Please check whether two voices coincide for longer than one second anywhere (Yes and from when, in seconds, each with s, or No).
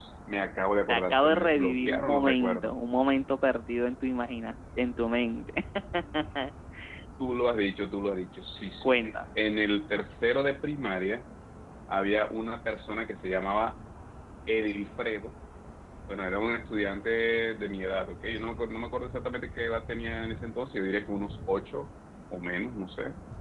Yes, from 0.9 s